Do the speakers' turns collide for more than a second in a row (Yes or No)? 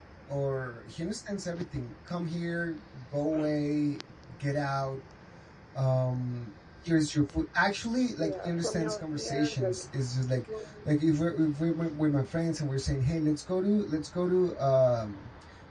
Yes